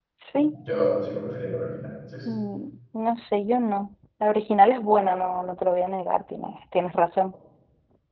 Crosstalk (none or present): none